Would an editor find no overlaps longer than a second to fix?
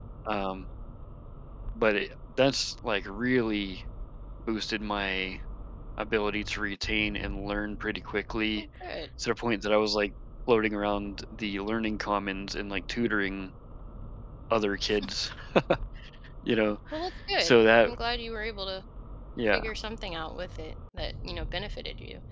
Yes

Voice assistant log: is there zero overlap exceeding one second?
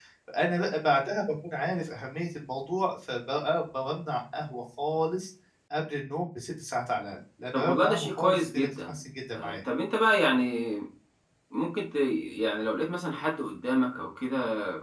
No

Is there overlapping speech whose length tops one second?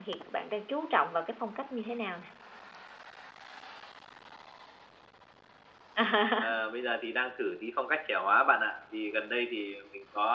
No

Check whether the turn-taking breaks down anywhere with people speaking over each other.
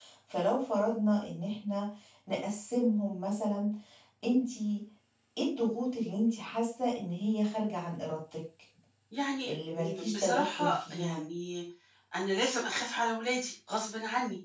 Yes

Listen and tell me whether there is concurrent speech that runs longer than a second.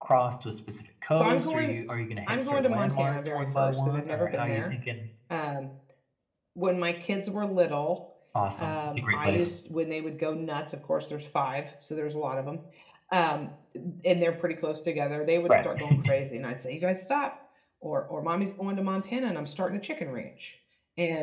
Yes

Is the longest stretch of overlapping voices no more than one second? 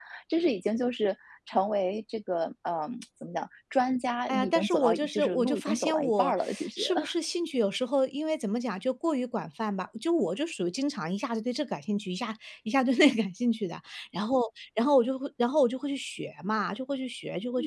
No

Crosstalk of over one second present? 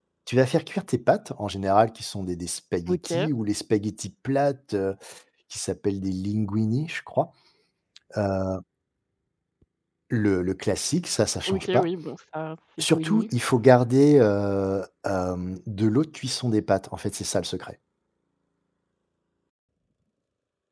No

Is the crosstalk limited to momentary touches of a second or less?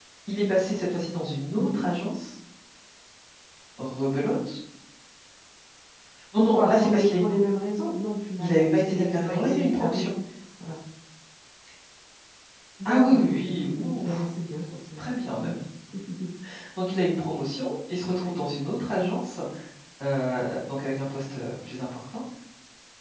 No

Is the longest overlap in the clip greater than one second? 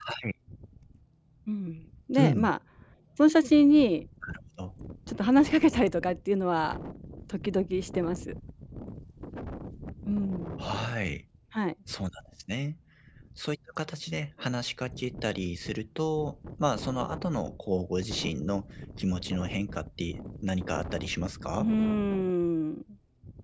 No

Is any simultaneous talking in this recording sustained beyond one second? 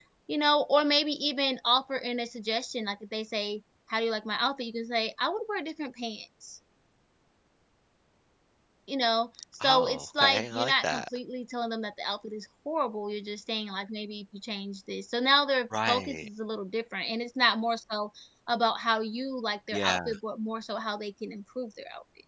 Yes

